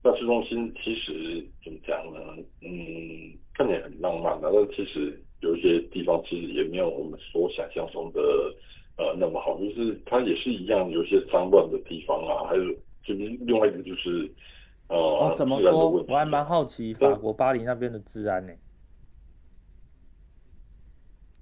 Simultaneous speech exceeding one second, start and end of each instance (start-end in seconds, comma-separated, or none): 15.2-16.4